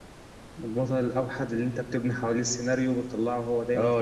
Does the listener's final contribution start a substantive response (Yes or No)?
Yes